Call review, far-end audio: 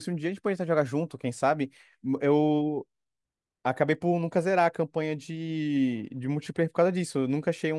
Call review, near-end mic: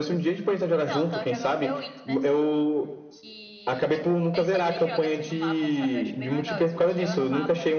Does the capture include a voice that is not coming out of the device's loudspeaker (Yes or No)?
Yes